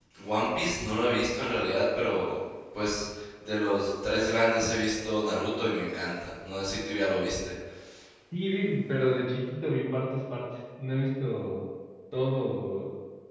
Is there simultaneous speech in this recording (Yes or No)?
No